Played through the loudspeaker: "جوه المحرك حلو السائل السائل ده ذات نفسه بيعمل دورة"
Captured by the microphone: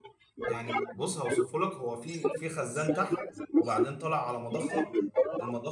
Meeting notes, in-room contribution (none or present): present